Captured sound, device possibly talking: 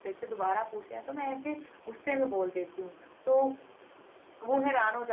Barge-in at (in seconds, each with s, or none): none